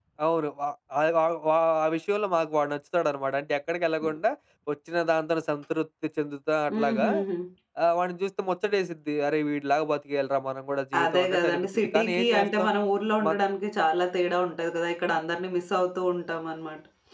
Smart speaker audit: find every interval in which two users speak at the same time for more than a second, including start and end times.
11.0-12.7

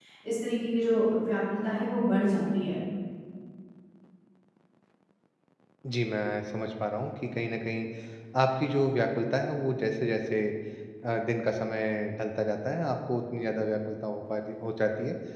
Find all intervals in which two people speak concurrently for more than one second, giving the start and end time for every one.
none

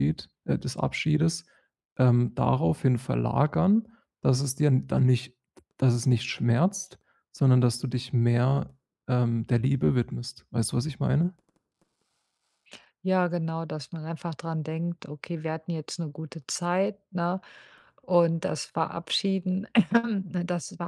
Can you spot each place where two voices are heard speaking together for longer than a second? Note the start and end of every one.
none

